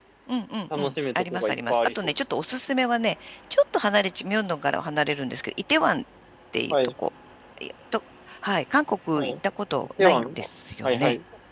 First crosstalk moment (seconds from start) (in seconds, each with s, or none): 0.8 s